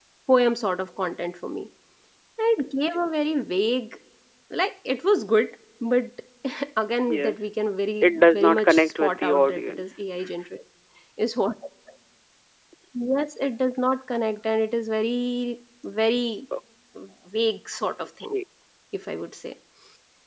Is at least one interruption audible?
Yes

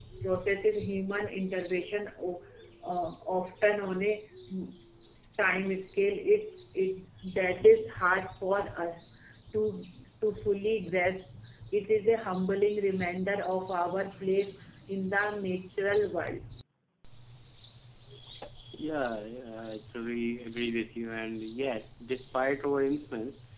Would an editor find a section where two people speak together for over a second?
No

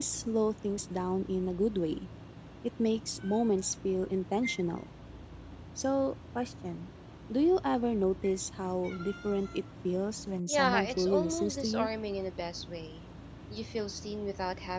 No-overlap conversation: No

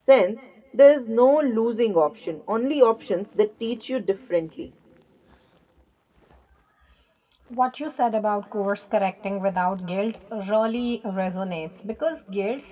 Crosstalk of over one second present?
No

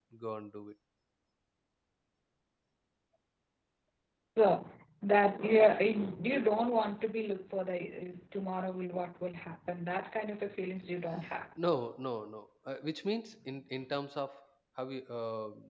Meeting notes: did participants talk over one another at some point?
No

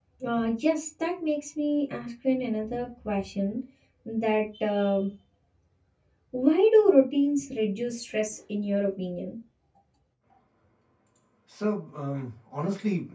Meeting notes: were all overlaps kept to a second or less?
Yes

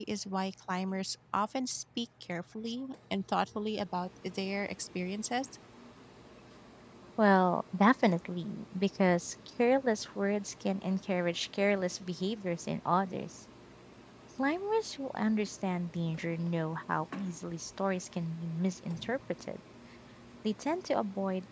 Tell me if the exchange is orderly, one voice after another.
Yes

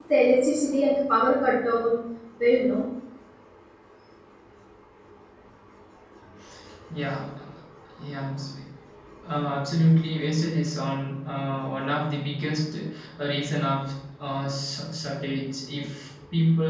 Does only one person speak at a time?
Yes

